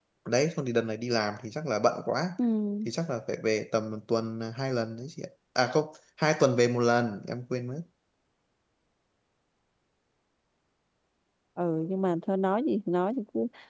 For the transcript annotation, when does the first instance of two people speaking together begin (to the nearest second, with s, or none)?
none